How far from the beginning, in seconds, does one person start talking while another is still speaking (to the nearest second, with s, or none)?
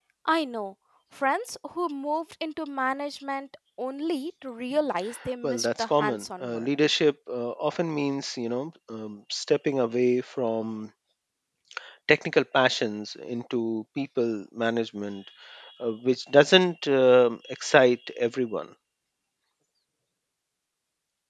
5 s